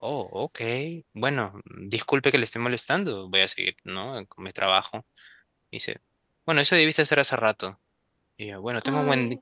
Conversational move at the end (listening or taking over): listening